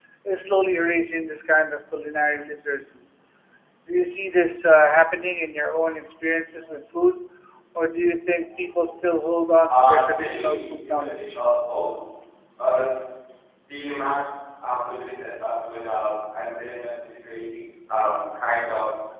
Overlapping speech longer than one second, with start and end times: 9.7-11.2

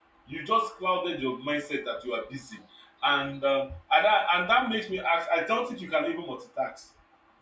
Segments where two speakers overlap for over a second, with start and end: none

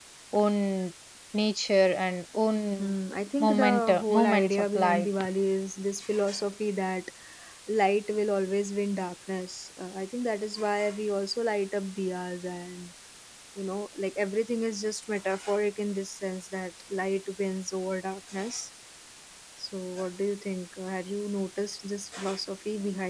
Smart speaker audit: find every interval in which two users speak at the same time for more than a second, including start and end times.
3.4-5.1

